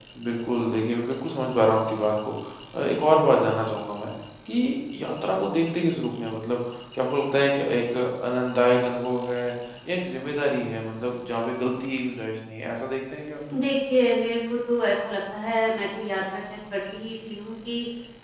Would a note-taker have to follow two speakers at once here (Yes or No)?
No